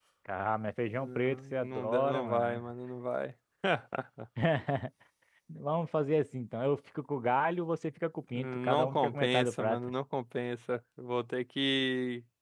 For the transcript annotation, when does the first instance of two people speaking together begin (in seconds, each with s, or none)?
0.9 s